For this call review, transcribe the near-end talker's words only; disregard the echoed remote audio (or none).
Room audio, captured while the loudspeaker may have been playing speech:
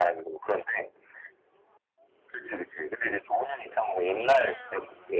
none